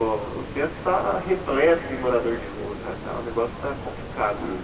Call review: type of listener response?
taking over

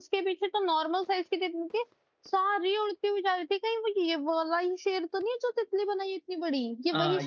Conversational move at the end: taking over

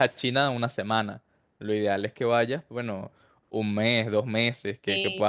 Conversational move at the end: listening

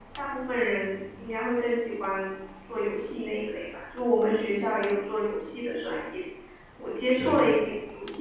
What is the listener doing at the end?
listening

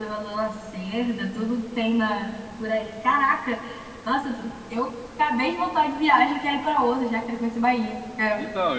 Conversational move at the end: taking over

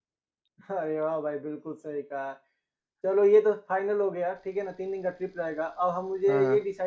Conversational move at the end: listening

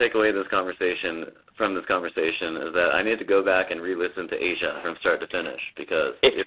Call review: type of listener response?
taking over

